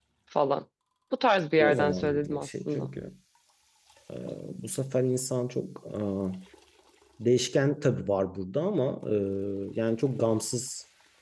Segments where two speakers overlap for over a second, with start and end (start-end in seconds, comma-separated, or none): 1.6-2.9